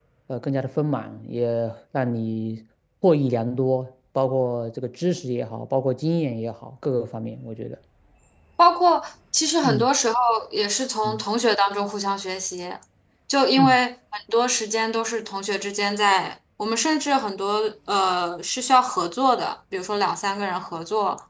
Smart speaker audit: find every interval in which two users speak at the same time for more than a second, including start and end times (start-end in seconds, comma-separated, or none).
none